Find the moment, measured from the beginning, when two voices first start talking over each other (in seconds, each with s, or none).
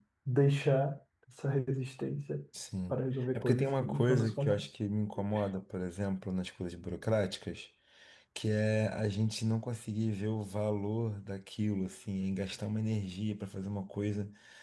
3.4 s